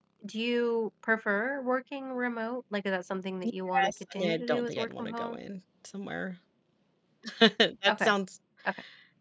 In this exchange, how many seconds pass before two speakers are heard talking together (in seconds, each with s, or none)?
3.4 s